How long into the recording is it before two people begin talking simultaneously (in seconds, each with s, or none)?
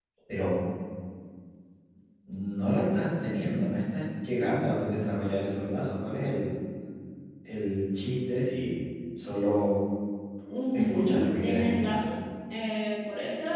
10.7 s